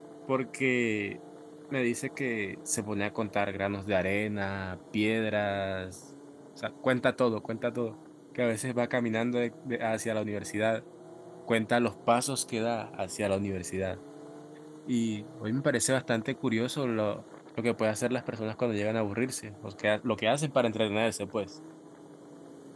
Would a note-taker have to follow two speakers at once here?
No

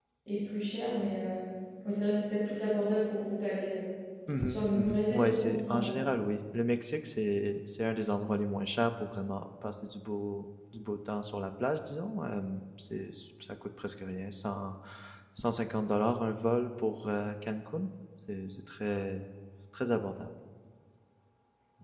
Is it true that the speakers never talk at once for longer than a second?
No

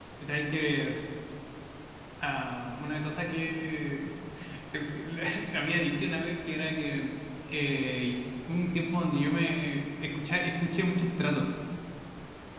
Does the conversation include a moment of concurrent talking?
No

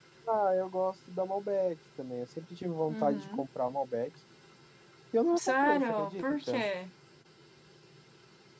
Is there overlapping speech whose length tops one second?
Yes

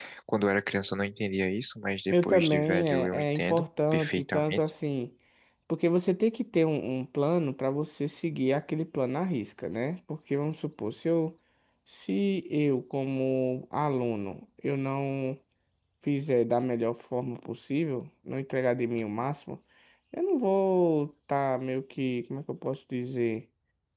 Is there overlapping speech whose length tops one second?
Yes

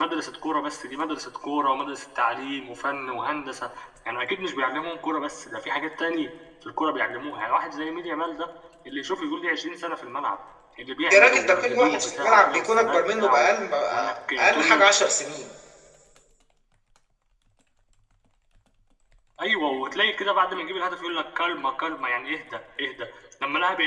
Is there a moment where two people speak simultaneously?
Yes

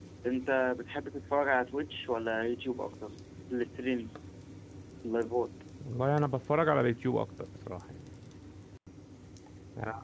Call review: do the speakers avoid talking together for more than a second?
Yes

